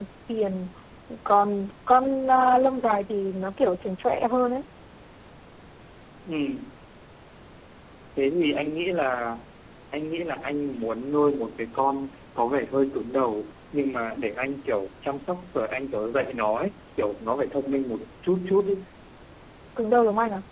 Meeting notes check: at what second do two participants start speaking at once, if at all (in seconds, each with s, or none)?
none